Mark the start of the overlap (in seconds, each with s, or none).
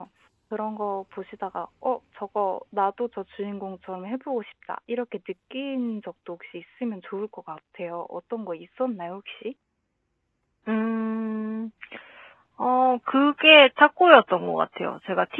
none